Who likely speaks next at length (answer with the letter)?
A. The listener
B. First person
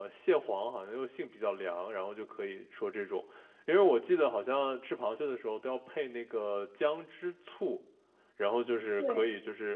B